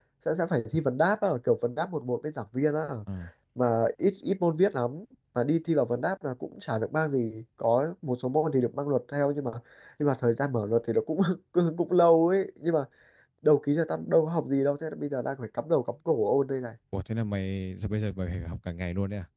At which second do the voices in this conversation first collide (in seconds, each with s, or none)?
none